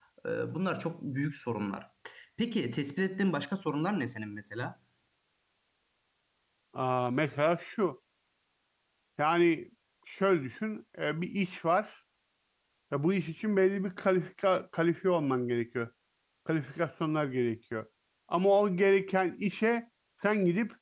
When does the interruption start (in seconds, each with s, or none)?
none